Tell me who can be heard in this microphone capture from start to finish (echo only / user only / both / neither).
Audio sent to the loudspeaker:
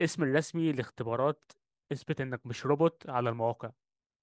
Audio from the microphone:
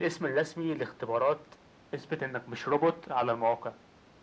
echo only